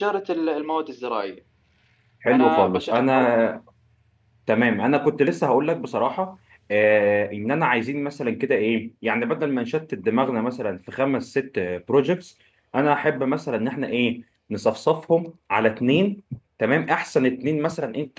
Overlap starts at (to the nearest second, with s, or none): 2 s